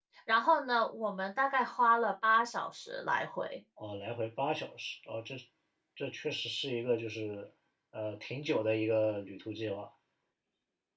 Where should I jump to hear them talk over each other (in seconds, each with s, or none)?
none